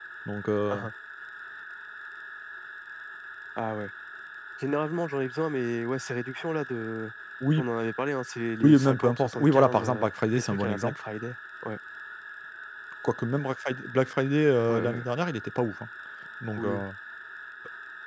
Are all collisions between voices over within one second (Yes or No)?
No